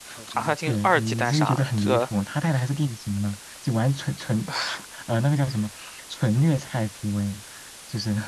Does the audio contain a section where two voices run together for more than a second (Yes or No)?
Yes